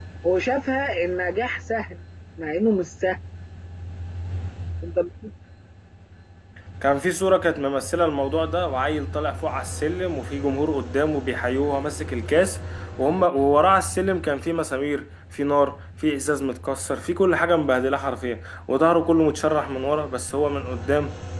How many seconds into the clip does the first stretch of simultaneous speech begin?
none

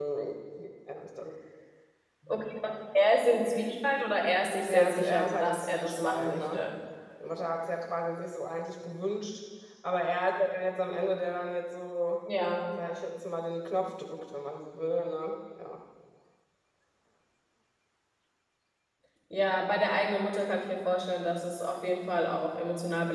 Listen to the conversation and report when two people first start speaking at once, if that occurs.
5 s

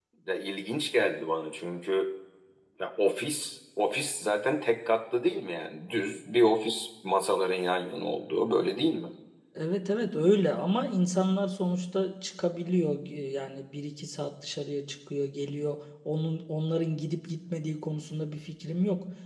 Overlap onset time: none

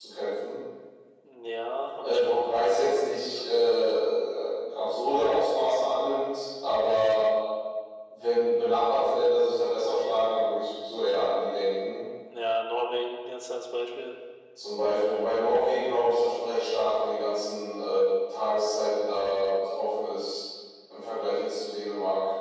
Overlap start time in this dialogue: 2 s

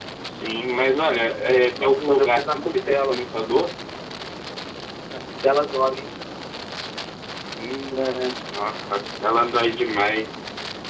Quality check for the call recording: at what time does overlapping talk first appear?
2 s

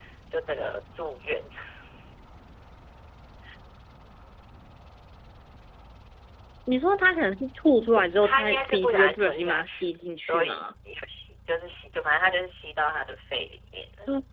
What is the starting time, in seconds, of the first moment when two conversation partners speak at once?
8 s

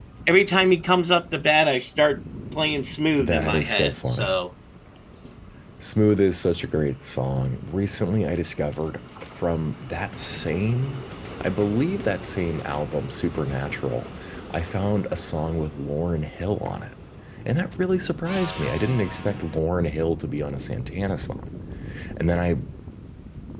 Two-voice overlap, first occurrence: 3 s

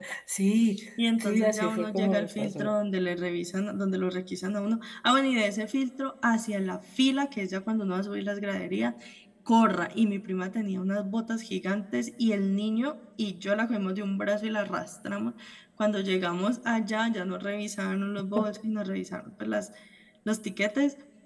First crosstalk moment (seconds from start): 1 s

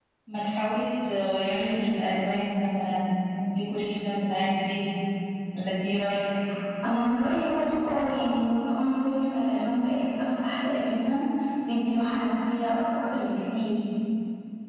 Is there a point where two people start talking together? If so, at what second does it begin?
none

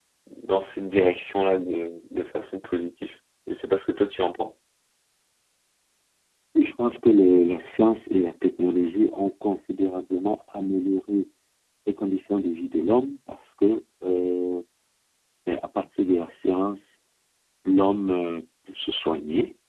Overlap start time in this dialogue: none

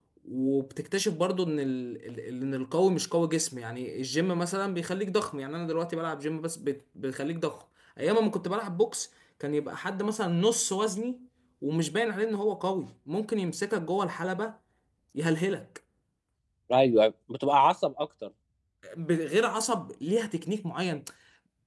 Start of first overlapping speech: none

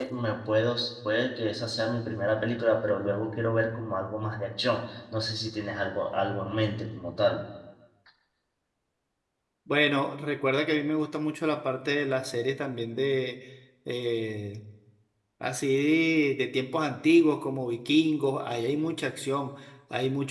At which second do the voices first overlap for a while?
none

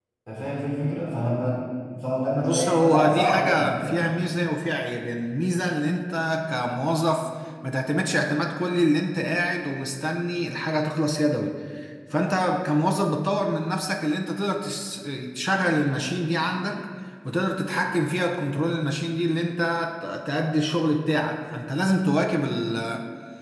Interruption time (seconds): 2 s

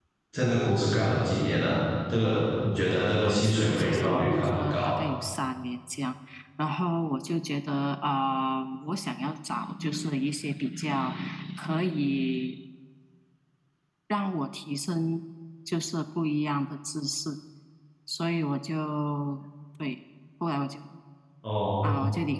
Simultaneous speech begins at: 3 s

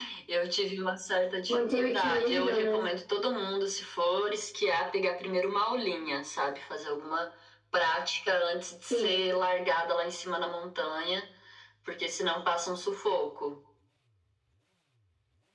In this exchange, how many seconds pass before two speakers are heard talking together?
1 s

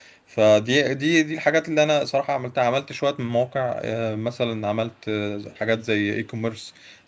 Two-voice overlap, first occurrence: none

